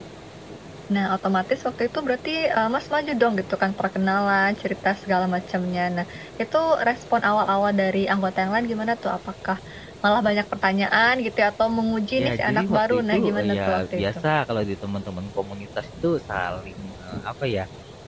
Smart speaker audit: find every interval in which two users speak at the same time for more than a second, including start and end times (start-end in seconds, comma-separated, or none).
12.2-14.2